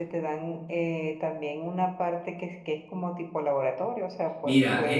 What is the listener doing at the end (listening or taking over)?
taking over